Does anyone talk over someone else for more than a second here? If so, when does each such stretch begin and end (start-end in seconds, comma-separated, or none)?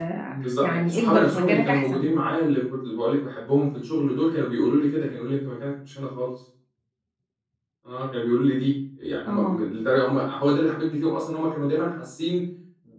0.6-2.0